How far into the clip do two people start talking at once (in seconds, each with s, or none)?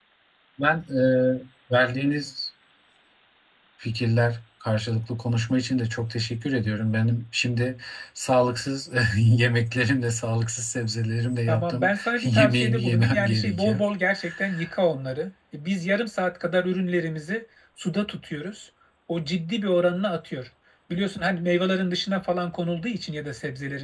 11.5 s